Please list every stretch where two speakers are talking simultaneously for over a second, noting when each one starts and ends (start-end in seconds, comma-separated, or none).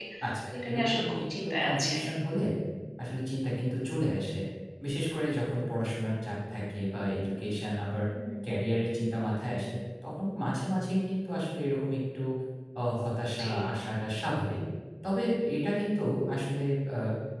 0.6-2.1